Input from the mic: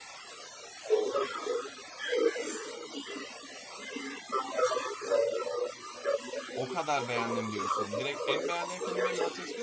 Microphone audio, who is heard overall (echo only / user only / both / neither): both